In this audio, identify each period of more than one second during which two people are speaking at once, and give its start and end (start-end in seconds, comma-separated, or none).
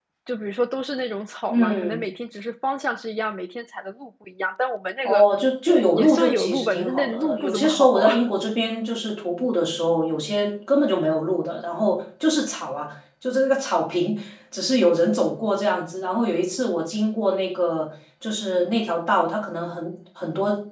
5.7-8.0